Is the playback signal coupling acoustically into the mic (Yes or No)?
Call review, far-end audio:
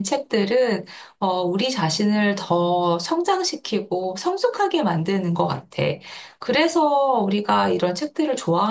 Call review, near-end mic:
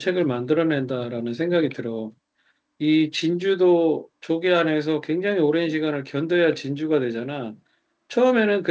No